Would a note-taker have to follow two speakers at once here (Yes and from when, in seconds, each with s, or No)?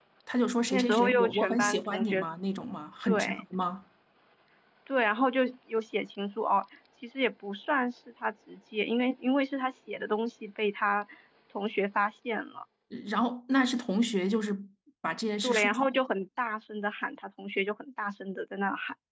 Yes, from 0.7 s